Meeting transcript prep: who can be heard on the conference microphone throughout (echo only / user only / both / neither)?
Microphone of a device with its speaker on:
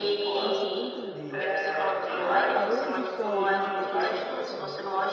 both